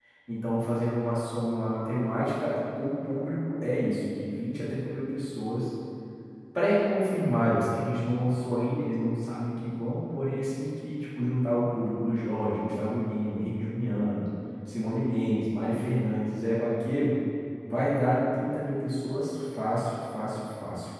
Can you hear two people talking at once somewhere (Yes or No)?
No